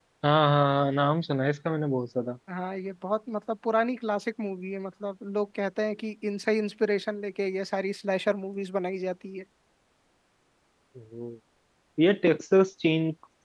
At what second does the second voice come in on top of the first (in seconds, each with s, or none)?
none